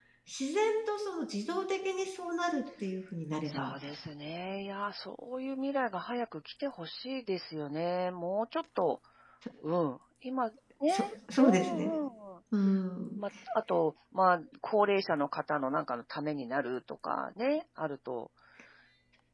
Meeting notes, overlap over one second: none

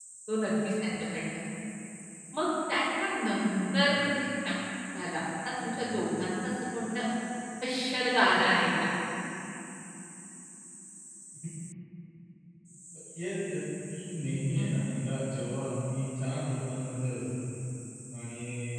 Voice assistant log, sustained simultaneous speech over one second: none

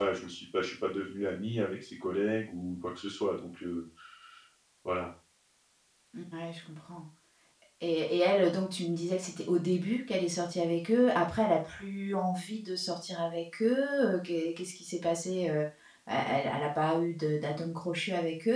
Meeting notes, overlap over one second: none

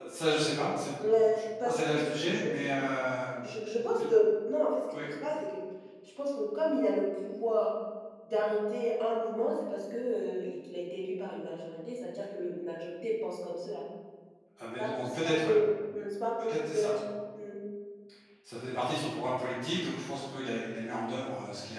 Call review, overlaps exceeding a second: present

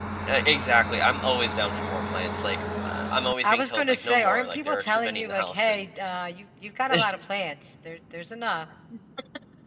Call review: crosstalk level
present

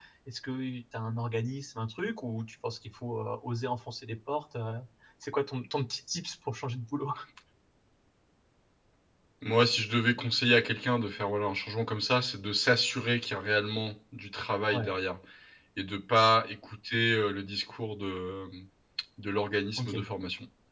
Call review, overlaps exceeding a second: none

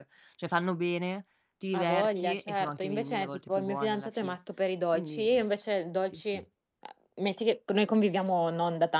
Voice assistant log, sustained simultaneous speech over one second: present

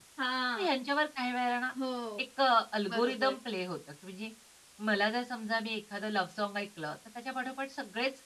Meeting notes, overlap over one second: none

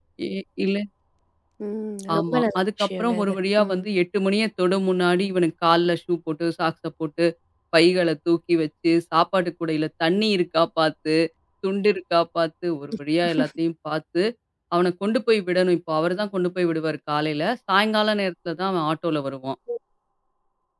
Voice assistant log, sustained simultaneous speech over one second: present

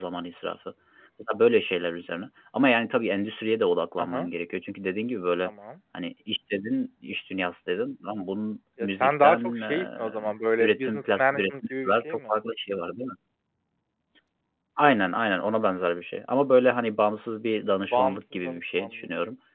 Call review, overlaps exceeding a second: present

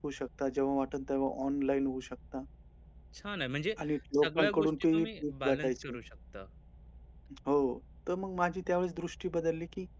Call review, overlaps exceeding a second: present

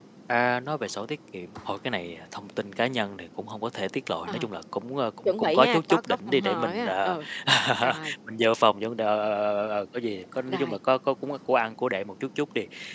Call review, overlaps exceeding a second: present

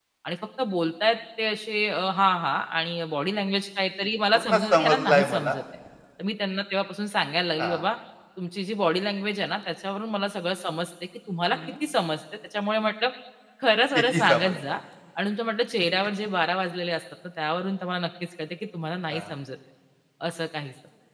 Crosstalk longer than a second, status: present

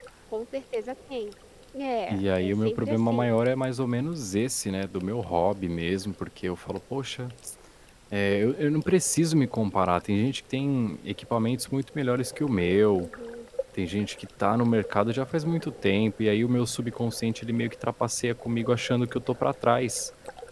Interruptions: present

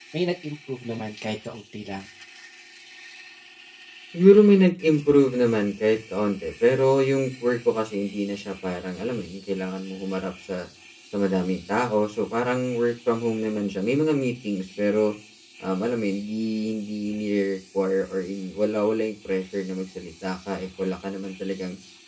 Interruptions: none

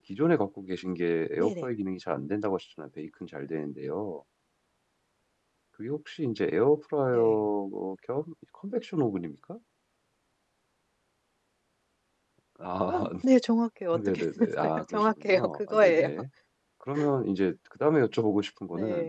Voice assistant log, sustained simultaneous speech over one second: present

